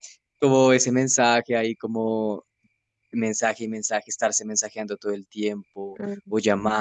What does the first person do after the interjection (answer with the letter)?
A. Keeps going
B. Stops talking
A